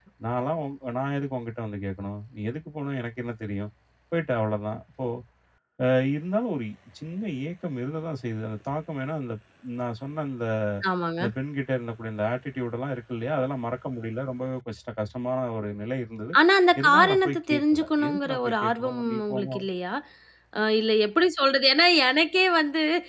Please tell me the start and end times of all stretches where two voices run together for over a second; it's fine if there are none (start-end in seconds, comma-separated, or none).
16.8-19.6